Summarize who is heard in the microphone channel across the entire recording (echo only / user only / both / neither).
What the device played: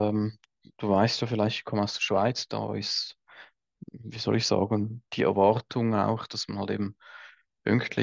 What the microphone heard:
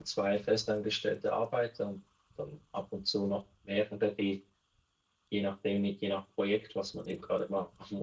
user only